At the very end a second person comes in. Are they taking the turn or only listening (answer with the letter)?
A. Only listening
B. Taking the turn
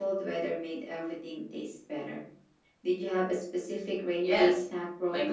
B